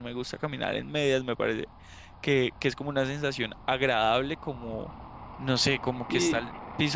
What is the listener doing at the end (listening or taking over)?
listening